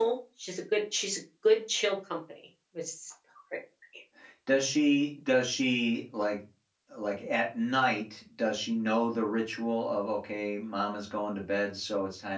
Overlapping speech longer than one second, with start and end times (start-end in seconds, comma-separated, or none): none